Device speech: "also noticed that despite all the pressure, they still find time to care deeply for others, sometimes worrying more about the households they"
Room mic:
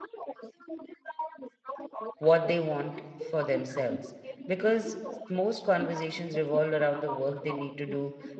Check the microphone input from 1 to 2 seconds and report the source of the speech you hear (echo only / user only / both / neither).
echo only